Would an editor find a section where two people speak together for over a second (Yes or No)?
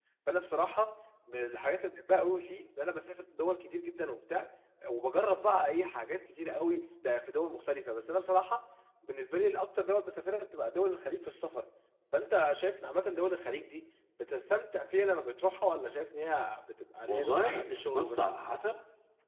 Yes